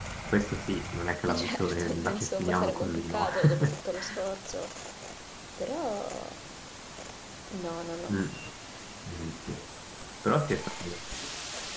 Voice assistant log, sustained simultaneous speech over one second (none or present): present